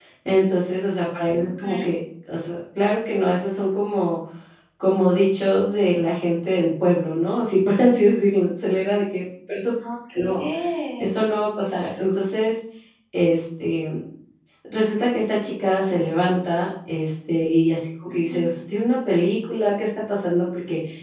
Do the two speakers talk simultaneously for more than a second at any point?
No

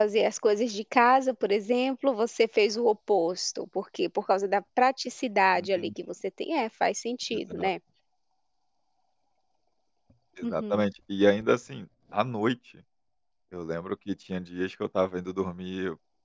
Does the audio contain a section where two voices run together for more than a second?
No

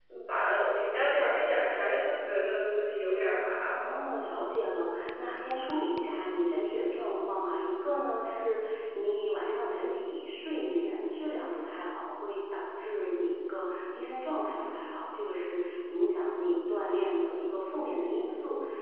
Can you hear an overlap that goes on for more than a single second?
No

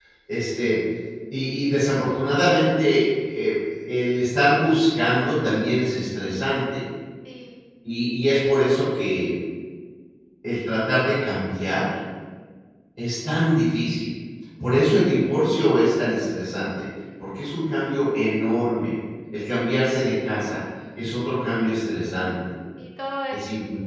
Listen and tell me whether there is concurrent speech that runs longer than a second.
No

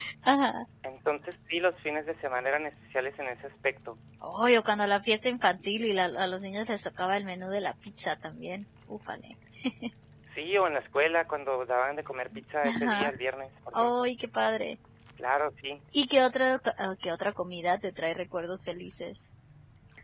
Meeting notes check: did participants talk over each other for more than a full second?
No

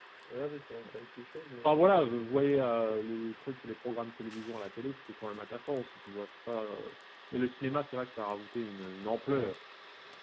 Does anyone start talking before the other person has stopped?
Yes, from 1.6 s

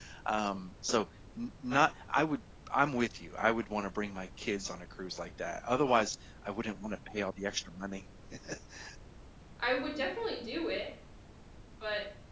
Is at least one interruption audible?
No

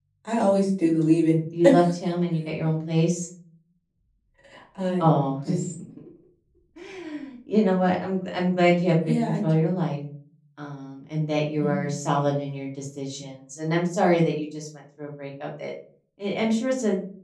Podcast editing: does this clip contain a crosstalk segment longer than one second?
No

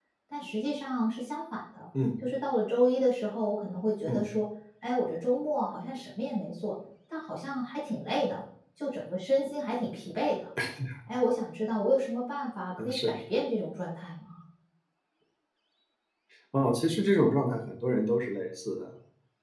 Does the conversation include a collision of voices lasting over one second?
No

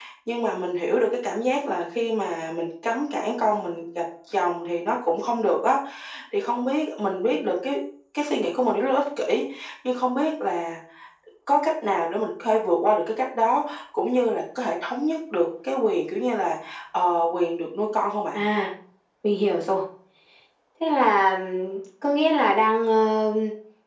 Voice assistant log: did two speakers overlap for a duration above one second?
No

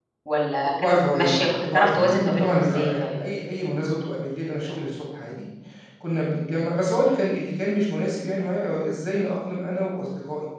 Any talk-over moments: Yes, from 0.8 s

